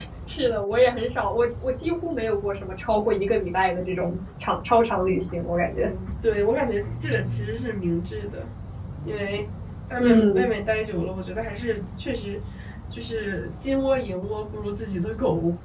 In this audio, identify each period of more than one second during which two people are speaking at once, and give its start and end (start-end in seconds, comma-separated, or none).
none